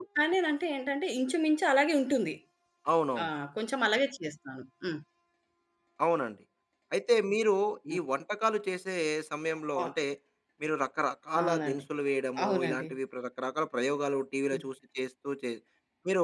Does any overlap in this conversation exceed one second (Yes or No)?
No